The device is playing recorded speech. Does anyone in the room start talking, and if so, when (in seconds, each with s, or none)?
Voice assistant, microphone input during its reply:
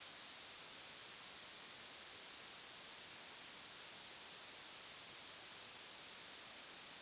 none